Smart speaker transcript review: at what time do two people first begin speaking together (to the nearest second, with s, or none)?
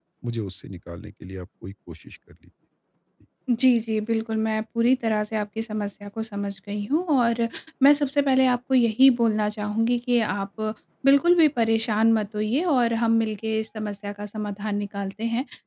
none